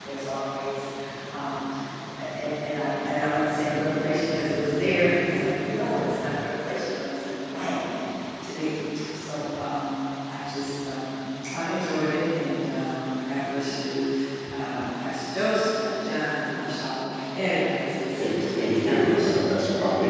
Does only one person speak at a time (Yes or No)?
No